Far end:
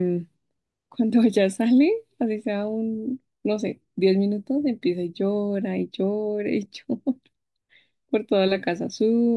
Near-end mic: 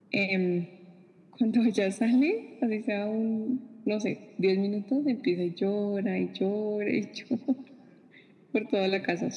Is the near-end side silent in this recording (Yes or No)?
Yes